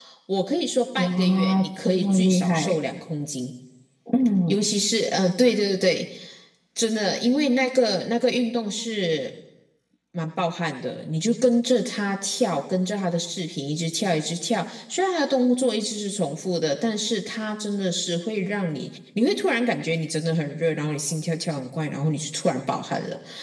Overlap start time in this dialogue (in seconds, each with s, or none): 1.0 s